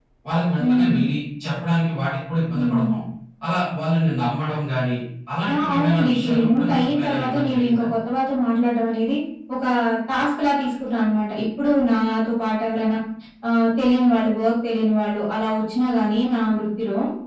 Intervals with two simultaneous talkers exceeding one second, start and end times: 5.5-7.8

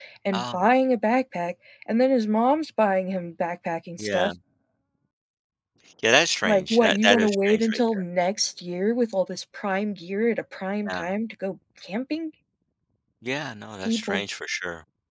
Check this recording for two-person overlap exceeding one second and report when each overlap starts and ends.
6.4-8.0

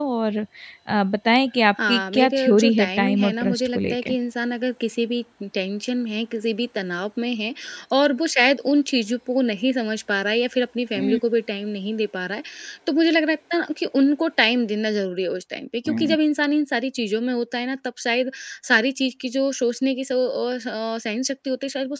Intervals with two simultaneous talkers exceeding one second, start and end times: 1.9-4.1

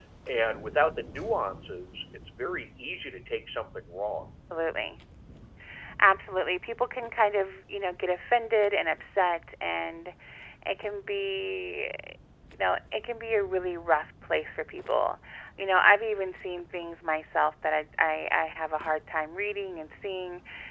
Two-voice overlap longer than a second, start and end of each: none

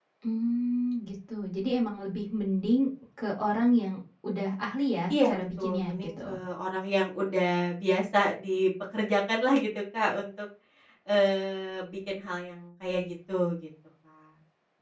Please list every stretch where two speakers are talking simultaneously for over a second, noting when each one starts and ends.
5.1-6.4

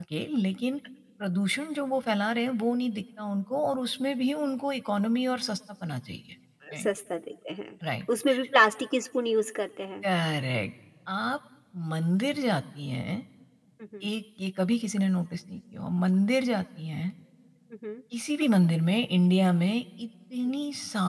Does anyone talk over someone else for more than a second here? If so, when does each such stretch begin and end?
none

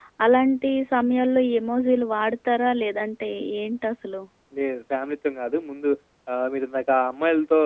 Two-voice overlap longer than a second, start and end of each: none

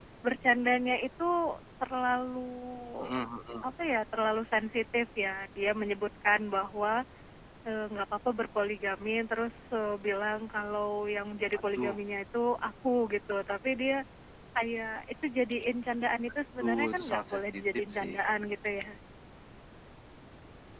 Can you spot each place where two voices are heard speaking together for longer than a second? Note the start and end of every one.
16.6-18.1

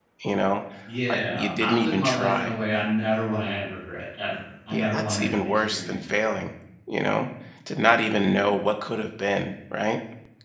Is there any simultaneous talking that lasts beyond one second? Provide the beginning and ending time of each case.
1.1-2.5, 4.7-5.9

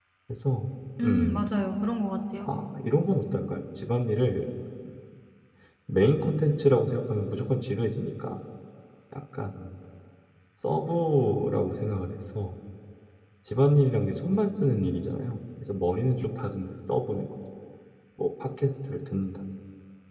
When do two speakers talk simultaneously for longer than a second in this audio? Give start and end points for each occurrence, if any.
none

